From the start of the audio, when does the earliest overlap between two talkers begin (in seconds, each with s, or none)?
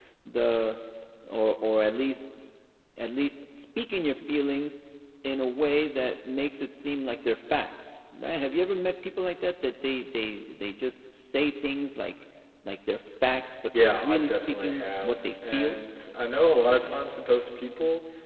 13.7 s